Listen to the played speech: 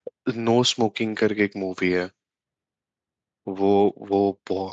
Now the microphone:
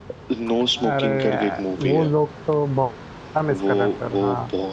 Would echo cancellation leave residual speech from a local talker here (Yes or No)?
Yes